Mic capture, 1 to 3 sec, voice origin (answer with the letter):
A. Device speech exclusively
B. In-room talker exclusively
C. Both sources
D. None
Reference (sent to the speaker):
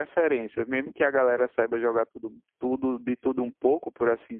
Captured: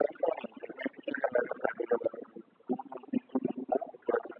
A